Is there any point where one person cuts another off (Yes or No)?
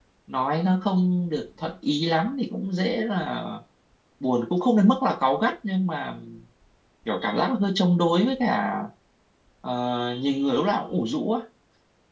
No